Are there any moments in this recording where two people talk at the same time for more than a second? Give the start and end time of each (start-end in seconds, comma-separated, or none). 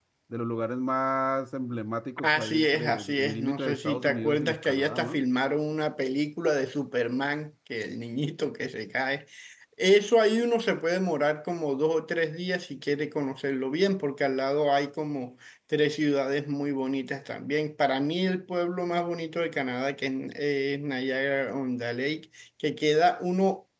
2.2-5.2